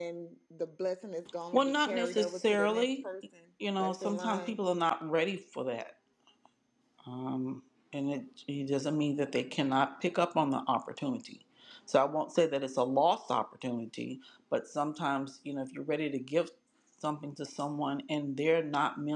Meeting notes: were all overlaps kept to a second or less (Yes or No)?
No